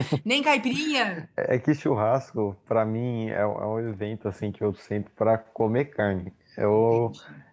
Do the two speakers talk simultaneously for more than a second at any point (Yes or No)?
No